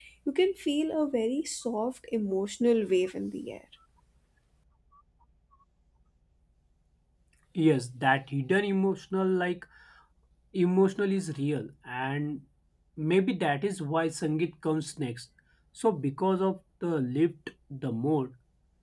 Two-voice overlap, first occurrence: none

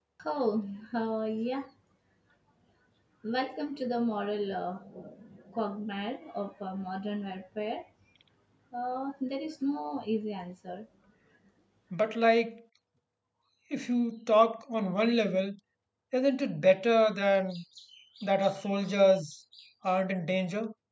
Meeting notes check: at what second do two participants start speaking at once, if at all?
none

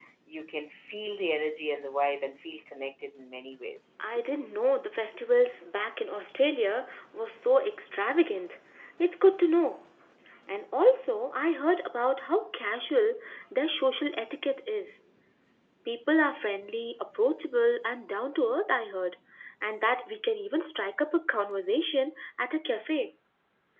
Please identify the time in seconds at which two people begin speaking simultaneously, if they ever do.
none

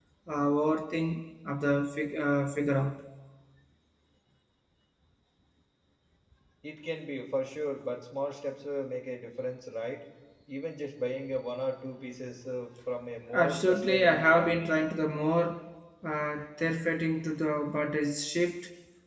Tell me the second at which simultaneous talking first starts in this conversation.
13.3 s

